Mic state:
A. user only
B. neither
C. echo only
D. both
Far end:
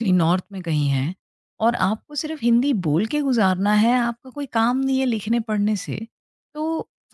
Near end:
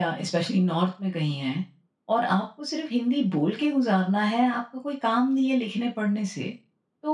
C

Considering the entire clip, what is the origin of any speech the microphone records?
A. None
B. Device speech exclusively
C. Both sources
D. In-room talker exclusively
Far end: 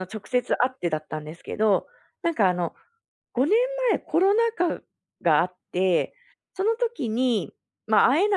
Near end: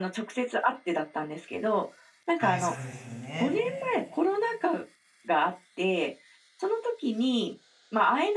C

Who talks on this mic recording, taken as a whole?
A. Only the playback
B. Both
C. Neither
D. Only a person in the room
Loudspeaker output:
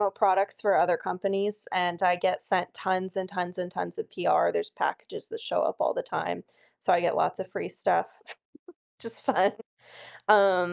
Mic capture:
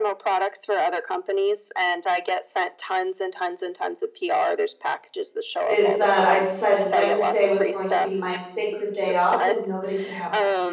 B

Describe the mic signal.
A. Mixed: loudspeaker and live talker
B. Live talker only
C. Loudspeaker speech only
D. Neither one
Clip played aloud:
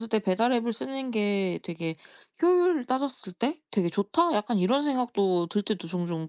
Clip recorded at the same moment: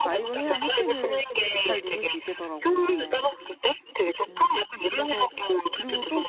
A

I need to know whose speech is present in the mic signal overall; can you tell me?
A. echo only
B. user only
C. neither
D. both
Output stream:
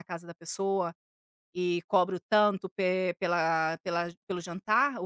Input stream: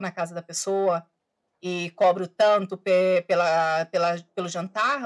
A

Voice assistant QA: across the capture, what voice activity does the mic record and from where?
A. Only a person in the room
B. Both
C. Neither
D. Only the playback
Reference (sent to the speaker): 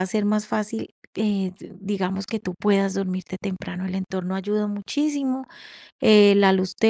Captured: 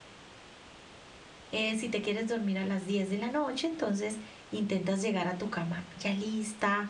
A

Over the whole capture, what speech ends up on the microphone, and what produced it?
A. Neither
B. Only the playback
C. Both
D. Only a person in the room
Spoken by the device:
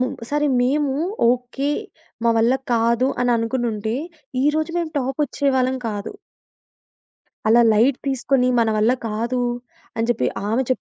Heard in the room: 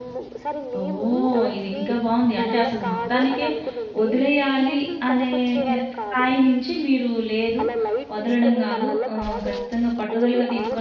C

